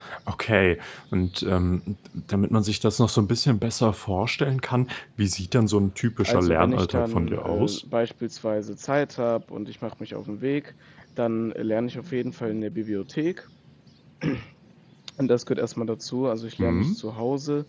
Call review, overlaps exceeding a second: present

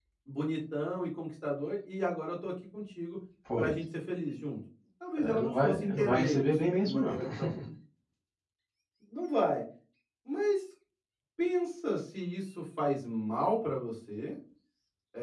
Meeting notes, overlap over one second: present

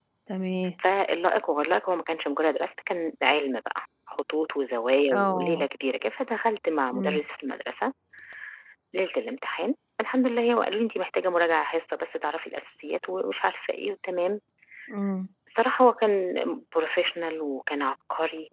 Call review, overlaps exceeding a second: none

